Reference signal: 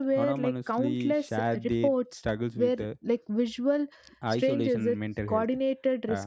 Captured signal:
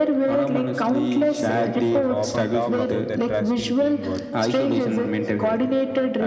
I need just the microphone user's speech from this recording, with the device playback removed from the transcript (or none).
gamers also often talk about the trust in teamwork,